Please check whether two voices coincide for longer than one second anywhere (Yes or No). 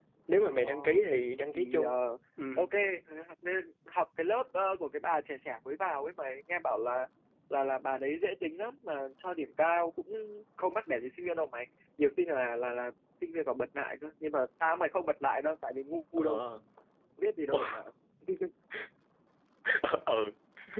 No